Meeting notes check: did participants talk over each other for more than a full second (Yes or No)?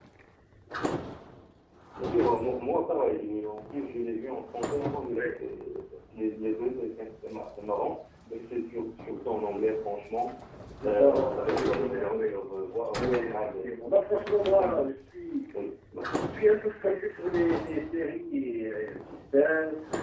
Yes